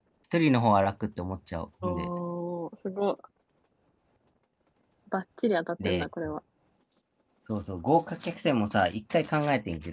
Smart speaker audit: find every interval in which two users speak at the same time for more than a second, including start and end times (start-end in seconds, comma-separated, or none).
none